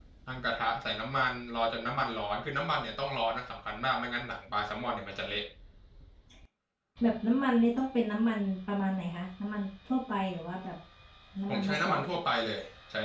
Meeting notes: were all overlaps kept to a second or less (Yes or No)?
Yes